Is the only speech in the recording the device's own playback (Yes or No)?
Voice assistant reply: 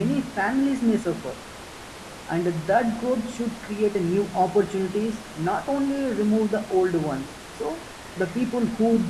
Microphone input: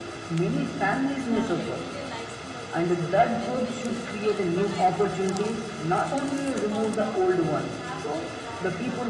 No